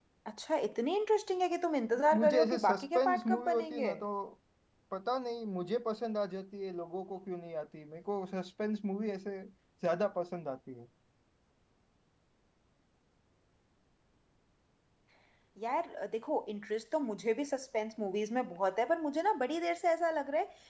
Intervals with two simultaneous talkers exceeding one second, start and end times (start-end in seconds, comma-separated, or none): 2.1-3.9